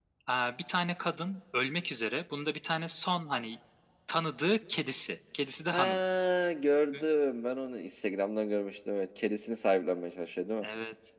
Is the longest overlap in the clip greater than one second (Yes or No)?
No